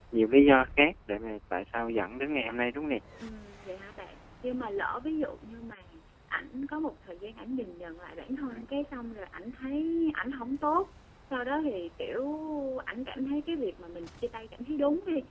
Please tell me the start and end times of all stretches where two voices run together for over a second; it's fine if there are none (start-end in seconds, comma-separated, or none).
none